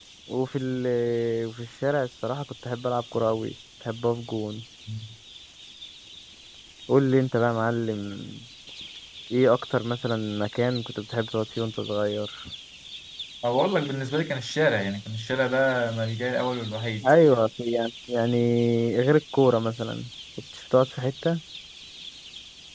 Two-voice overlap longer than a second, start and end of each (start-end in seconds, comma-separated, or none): none